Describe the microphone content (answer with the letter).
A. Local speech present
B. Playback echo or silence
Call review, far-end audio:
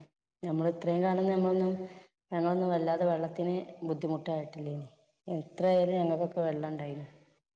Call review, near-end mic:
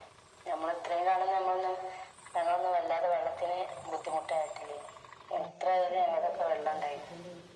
A